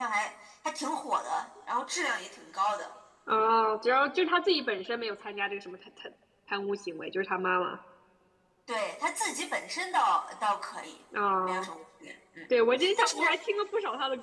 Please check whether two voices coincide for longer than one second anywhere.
No

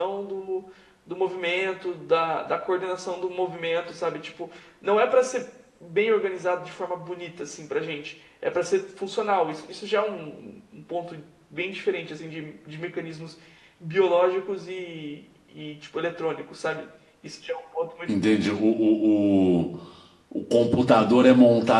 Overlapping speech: No

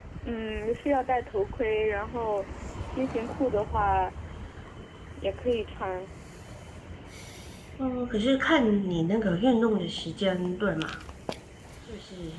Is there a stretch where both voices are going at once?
No

